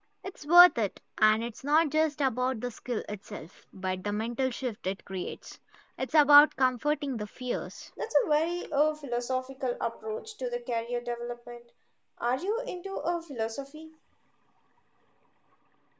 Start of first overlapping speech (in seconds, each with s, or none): none